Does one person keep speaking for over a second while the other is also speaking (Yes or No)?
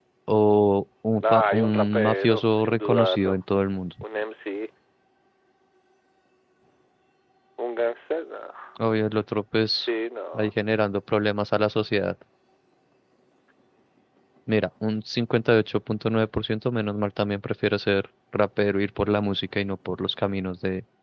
Yes